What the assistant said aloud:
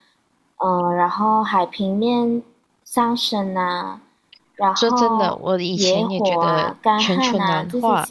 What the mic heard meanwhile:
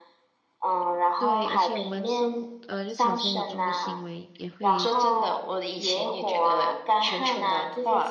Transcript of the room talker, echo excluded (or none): 对，而且我们生活，呃，日常生活中的行为也会